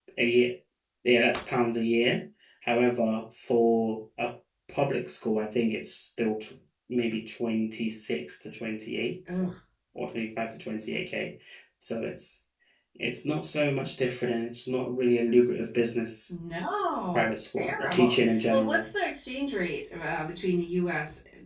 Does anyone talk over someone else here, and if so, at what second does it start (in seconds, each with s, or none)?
17.1 s